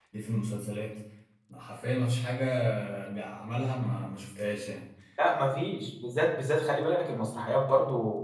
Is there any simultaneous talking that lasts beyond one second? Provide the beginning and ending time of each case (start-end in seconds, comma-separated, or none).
none